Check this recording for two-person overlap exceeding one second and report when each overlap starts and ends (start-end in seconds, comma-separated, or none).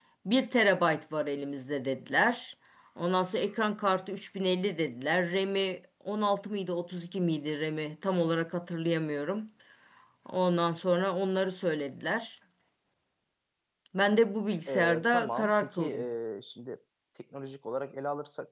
14.7-16.1